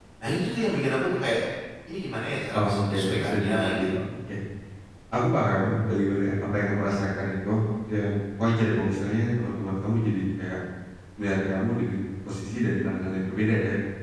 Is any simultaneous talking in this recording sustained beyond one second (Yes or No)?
Yes